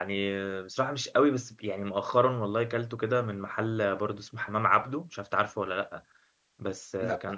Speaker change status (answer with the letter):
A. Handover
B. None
B